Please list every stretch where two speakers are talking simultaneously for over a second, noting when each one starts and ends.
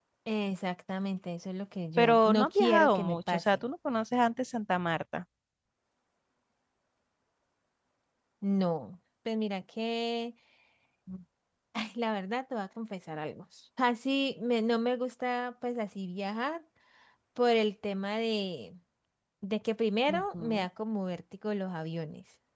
2.0-3.4

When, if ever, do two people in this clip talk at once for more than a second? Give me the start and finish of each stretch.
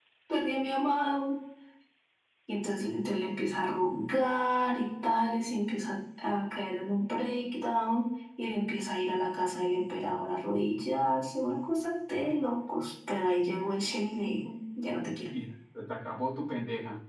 none

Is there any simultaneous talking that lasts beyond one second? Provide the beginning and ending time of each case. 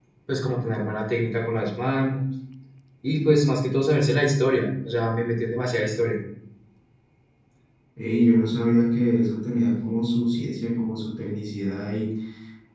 none

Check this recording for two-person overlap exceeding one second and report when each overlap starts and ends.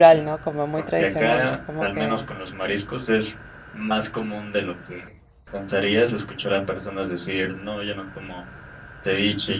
1.0-2.2

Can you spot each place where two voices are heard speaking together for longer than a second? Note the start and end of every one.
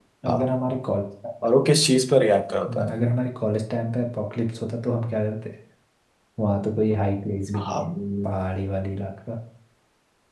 none

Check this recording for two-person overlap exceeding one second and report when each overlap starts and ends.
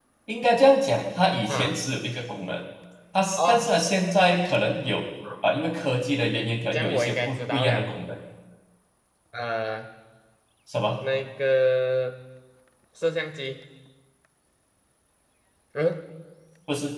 6.7-7.9

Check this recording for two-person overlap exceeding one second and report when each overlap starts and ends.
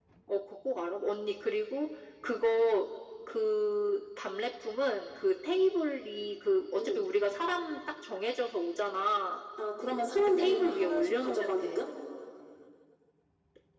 10.4-11.8

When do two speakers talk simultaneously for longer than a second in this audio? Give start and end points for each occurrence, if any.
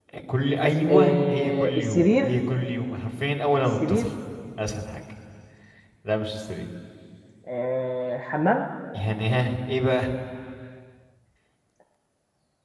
0.9-2.3

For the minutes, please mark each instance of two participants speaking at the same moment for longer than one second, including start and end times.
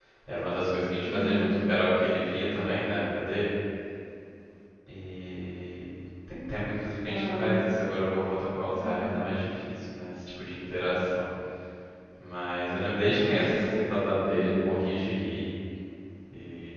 13.1-14.8

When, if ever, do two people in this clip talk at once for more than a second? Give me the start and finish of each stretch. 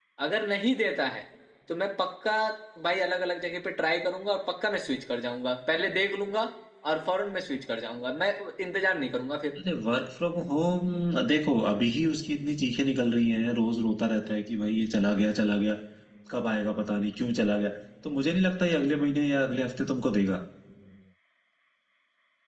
none

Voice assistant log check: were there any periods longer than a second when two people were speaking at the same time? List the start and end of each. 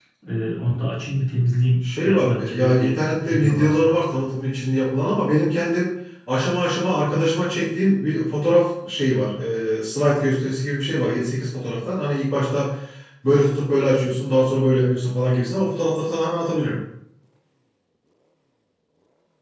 2.0-3.9

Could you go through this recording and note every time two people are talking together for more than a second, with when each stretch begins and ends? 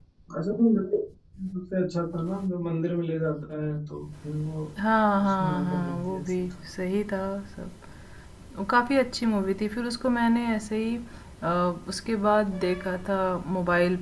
5.2-6.6

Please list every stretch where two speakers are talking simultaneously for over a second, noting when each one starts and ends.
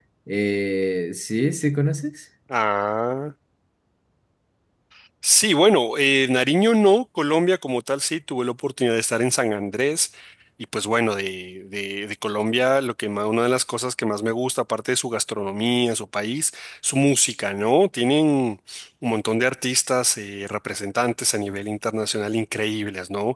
none

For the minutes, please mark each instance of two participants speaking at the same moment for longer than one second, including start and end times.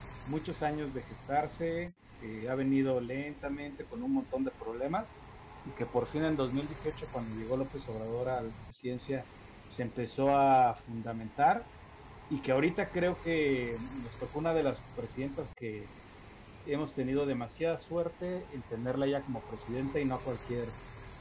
none

